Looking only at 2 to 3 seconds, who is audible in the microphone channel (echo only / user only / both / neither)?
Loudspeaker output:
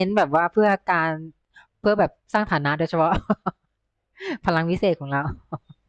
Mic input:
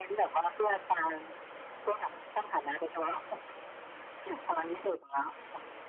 echo only